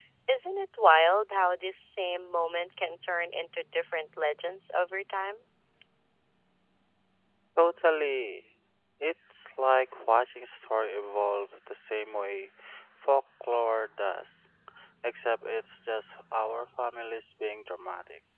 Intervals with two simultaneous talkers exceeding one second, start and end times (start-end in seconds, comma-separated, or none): none